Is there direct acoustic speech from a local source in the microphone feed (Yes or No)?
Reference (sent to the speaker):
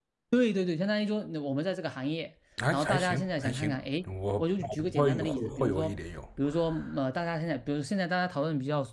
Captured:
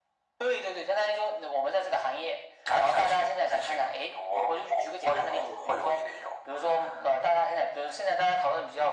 No